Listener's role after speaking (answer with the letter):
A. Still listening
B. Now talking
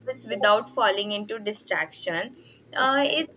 A